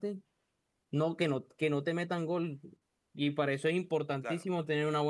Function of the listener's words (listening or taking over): listening